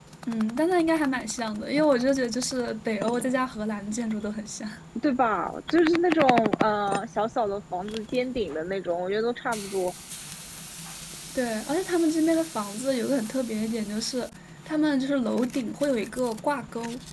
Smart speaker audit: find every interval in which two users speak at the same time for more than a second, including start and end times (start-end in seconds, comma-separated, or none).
none